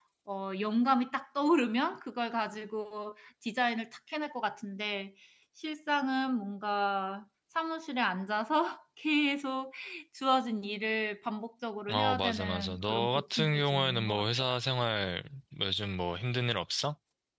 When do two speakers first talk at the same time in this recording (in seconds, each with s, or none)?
11.9 s